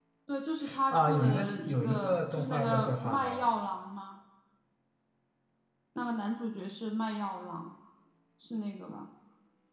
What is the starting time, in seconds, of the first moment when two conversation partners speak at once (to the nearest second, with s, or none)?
1 s